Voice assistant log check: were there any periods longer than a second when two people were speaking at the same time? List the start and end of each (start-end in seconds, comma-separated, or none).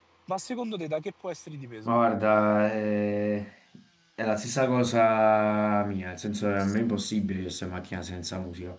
none